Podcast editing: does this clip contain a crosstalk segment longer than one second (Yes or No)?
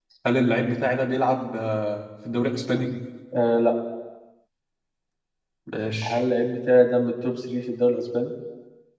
No